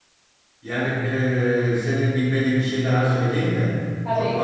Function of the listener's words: listening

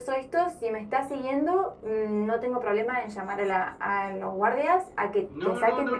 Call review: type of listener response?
taking over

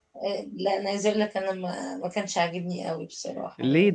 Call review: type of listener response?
taking over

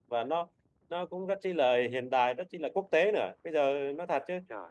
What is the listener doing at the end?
listening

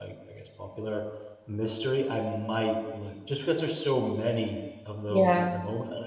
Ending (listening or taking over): listening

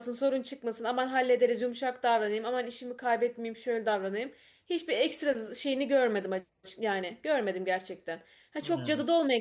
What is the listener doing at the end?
listening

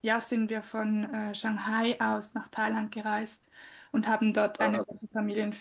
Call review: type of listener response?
listening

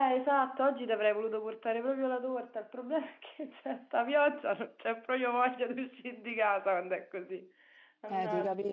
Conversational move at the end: taking over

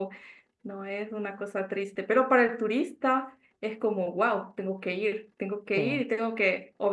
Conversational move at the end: listening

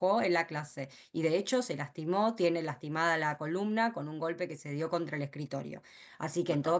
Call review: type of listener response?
listening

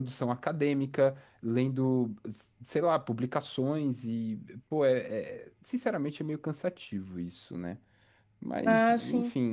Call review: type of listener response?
taking over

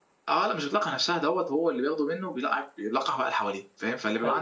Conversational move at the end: listening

